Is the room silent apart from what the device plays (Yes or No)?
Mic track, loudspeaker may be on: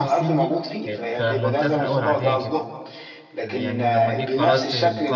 No